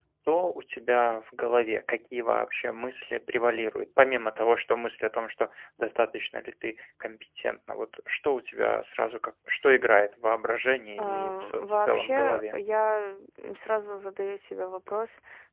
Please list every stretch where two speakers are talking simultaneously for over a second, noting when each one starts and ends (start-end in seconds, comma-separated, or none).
11.0-12.6